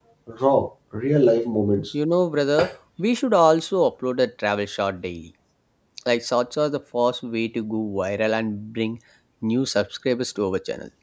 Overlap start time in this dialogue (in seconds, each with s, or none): none